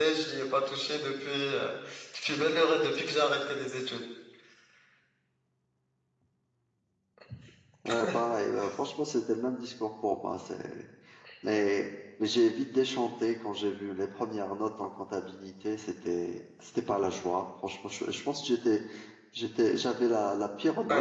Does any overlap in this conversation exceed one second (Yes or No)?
No